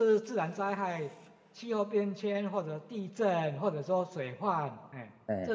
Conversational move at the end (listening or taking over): listening